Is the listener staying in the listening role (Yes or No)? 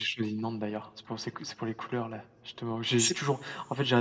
Yes